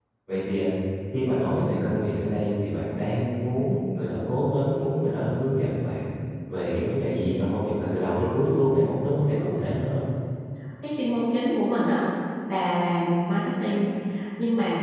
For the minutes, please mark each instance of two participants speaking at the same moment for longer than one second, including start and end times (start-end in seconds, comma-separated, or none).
none